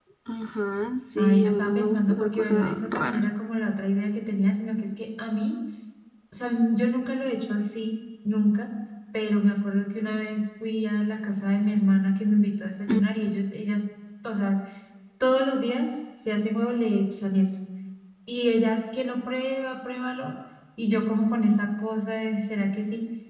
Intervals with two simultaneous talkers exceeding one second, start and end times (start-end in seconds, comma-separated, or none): 1.2-3.2